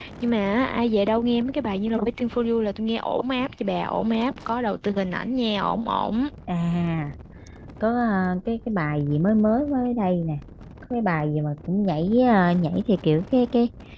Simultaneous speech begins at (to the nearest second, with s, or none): none